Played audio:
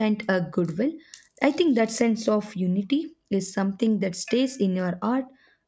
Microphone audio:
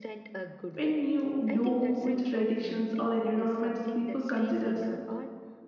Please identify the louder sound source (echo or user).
user